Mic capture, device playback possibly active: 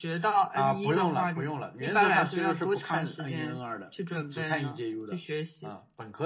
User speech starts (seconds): none

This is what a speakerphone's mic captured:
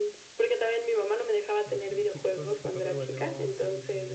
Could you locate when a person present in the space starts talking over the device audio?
1.6 s

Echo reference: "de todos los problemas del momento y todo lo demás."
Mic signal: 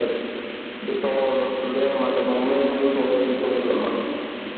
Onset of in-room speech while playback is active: none

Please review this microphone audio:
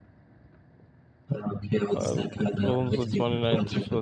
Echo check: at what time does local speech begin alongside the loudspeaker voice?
1.9 s

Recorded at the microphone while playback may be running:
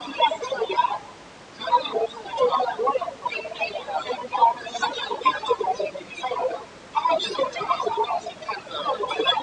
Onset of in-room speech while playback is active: none

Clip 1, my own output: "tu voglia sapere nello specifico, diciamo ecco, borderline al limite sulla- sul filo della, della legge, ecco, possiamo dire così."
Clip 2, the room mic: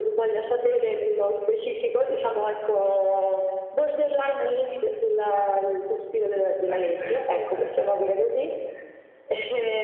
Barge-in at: 6.6 s

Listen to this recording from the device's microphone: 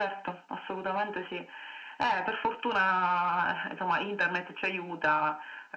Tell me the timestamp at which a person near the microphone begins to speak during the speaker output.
none

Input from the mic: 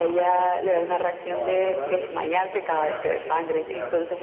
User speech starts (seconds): 0.6 s

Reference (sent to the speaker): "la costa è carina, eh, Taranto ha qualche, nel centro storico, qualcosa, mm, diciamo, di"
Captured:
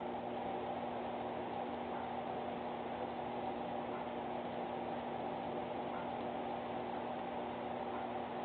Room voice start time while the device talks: none

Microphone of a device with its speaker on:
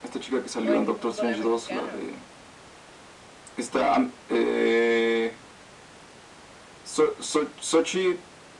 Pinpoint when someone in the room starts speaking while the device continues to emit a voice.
0.6 s

